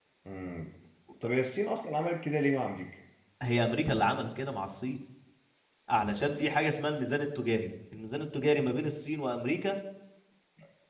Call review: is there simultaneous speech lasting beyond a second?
No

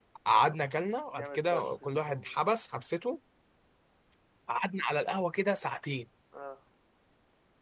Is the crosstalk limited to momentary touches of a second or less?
No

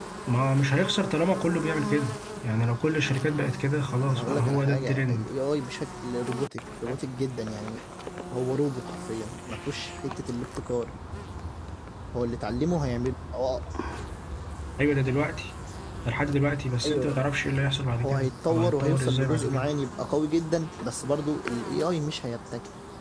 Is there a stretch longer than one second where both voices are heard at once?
Yes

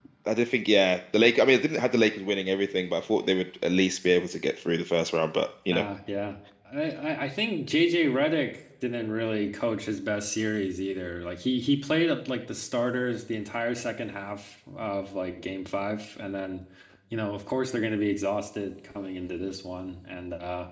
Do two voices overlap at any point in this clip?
No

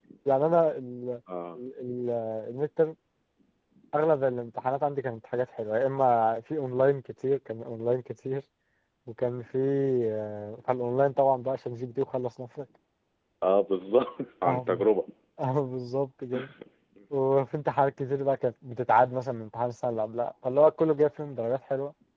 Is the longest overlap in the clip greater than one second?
No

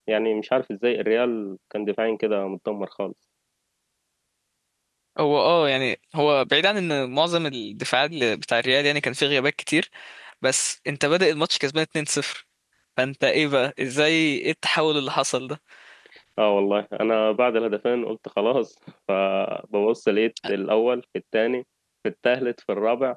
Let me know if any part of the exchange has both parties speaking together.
No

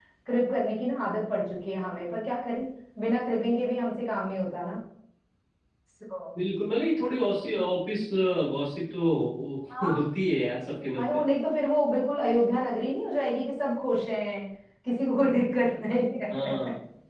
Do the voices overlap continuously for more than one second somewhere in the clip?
No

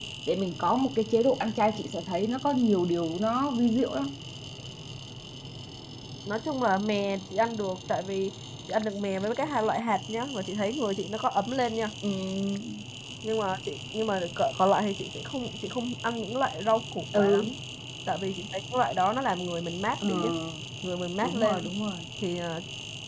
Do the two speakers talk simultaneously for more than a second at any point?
No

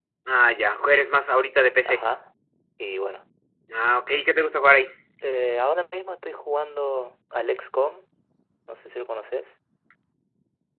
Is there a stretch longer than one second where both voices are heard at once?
No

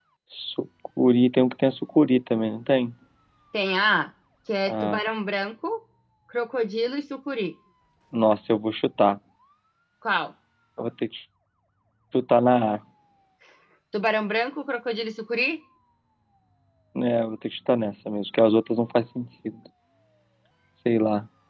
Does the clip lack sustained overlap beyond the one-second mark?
Yes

